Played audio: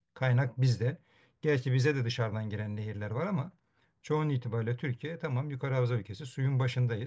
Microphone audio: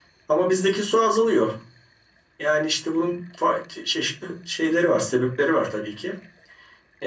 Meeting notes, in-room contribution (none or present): present